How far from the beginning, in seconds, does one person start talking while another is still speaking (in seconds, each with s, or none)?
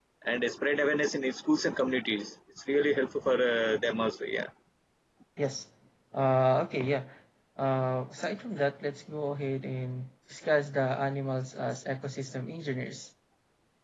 none